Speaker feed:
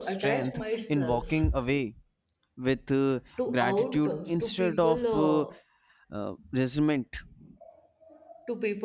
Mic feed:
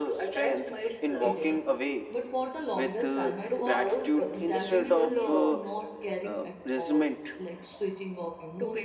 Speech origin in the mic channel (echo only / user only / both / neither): both